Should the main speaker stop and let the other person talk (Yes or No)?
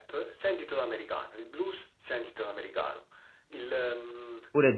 Yes